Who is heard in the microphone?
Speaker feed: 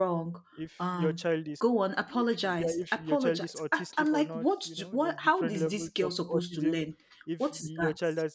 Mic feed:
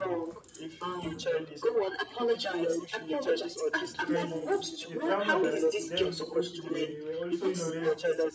both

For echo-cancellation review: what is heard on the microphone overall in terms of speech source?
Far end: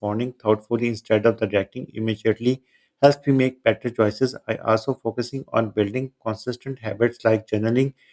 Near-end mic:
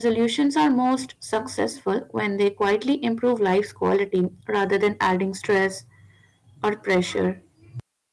user only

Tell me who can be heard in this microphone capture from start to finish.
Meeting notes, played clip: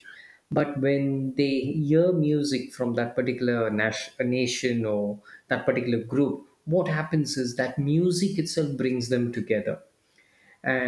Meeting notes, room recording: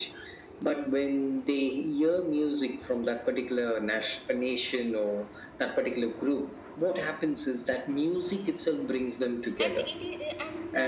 both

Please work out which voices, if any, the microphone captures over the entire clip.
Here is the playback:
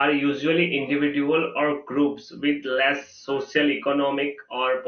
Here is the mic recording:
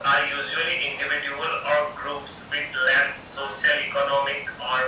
echo only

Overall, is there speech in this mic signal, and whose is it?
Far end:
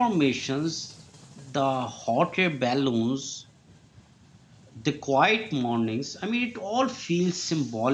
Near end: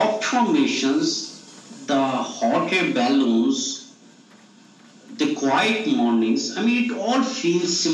echo only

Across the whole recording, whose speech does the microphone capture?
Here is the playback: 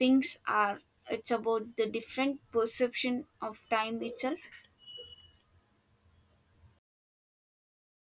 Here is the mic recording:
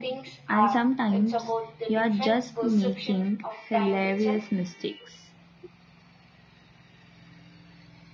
both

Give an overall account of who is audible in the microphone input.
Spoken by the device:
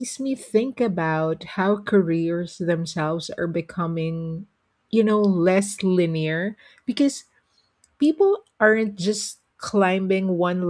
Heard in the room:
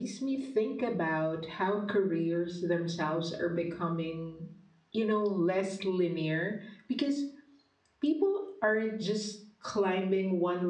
echo only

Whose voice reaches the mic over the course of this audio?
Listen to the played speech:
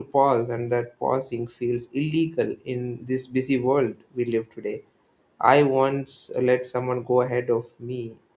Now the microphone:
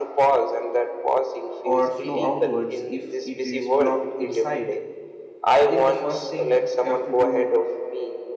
both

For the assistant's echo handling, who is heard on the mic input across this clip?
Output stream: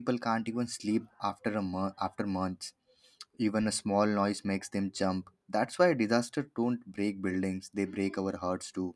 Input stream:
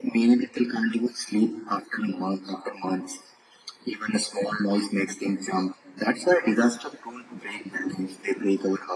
echo only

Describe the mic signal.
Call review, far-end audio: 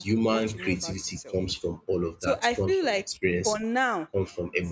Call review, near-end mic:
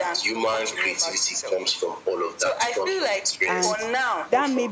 both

